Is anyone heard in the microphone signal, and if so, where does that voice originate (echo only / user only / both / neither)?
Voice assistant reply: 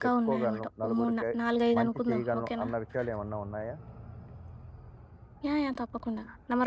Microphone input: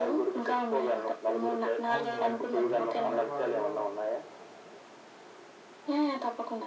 both